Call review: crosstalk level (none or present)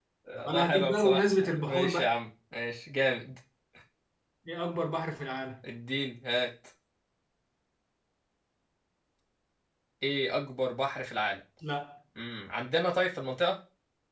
present